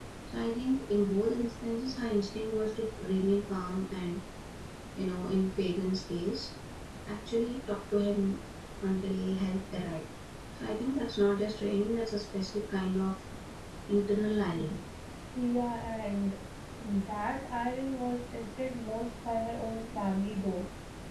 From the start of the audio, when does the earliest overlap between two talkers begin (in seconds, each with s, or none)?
none